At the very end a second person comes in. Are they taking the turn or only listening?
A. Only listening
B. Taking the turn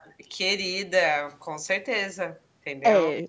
B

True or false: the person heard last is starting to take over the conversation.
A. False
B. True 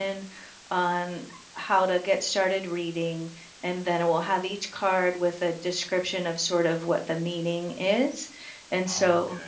A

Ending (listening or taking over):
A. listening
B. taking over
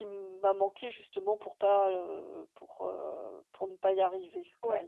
B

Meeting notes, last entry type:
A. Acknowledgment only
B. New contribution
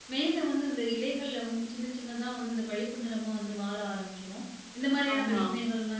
A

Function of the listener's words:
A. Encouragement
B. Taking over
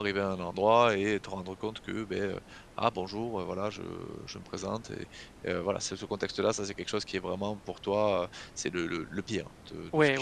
B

